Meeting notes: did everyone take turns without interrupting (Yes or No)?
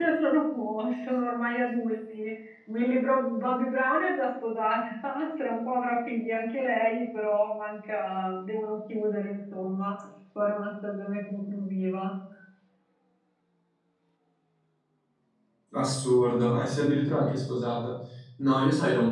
Yes